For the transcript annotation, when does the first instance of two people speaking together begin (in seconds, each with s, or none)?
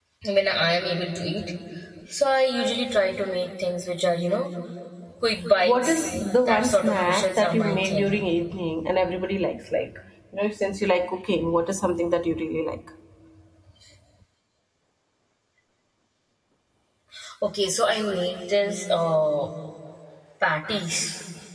5.6 s